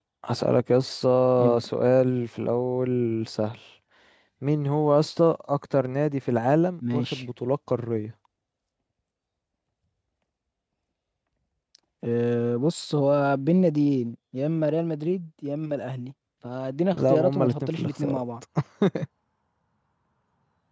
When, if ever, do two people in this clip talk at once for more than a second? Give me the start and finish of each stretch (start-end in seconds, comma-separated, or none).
16.9-18.2